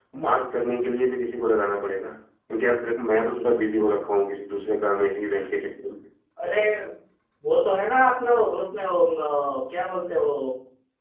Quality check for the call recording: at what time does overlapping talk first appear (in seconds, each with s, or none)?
none